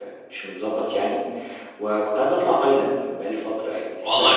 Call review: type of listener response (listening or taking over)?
taking over